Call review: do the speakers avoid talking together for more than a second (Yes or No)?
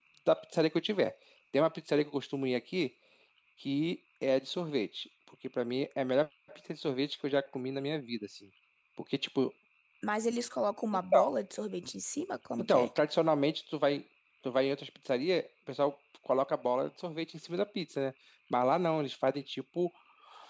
Yes